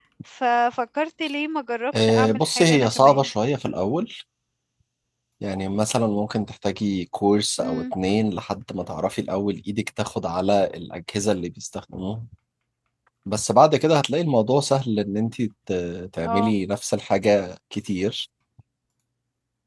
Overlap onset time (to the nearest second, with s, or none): 2 s